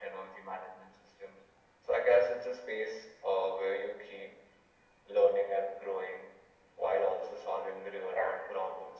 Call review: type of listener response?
listening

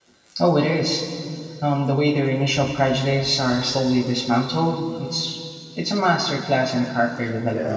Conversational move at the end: taking over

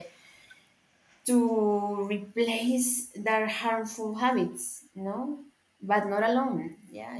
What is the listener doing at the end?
listening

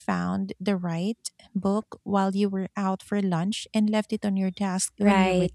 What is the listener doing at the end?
taking over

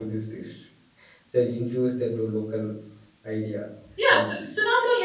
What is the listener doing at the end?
taking over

